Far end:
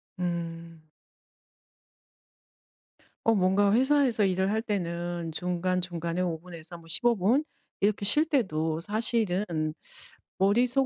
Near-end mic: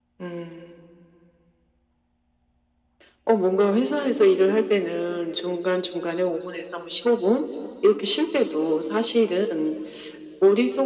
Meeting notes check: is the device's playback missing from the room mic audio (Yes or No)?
No